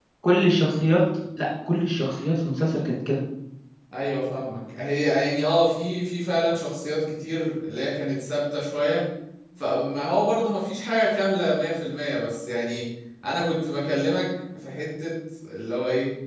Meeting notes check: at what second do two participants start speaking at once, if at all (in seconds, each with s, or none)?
none